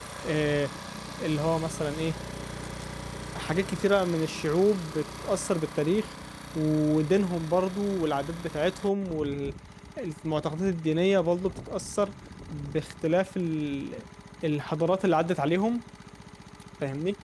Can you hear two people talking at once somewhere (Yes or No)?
No